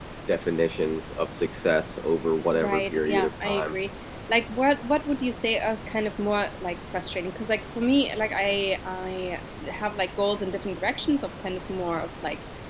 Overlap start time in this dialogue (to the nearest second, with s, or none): 3 s